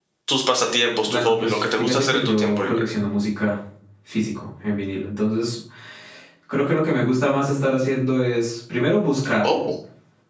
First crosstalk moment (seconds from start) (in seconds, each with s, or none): 1.1 s